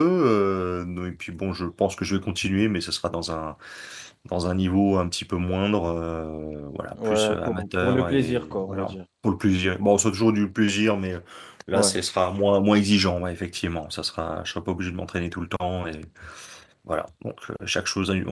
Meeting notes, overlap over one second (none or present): present